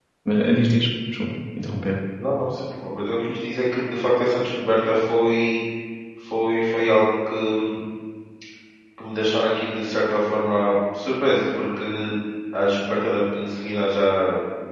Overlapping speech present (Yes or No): No